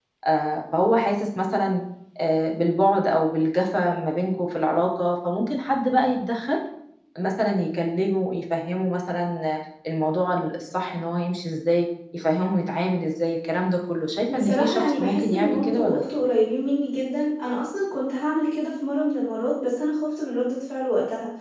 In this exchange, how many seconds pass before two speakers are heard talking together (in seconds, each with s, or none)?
14.3 s